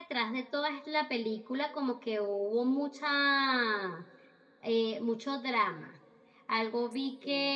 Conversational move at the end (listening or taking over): listening